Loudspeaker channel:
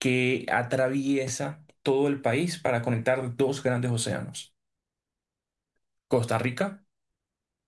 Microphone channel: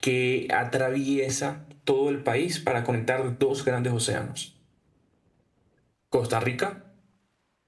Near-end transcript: none

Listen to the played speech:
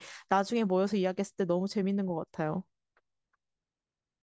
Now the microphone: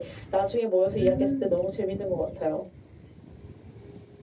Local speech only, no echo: 음.

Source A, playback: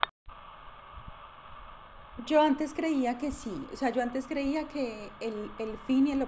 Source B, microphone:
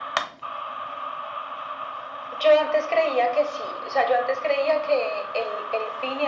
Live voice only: none

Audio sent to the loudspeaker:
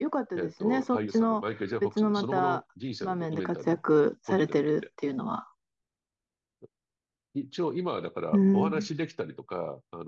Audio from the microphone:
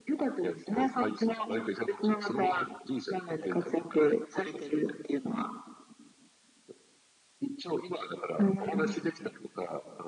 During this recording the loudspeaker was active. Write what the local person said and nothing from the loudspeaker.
none

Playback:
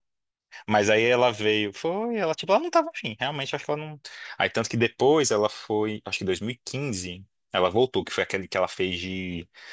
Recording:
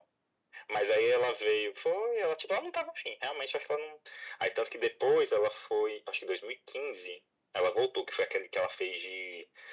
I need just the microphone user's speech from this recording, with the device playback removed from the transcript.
none

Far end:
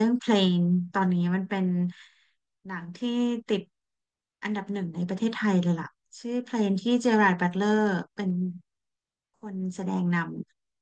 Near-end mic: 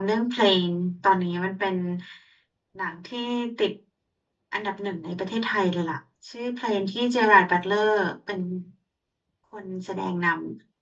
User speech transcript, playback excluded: none

